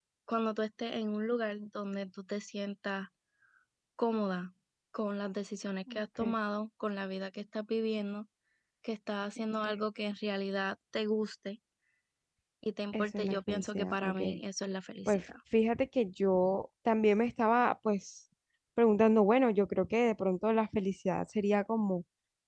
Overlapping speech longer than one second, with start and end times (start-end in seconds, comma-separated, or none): 12.9-14.1